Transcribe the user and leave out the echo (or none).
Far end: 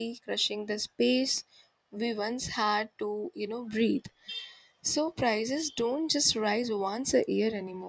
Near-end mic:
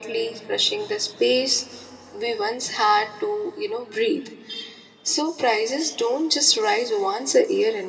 none